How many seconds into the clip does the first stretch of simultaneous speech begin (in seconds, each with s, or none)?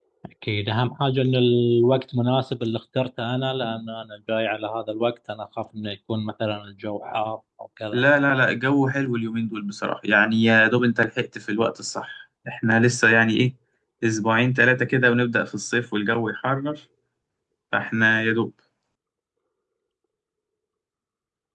none